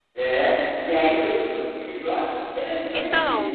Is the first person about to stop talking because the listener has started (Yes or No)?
Yes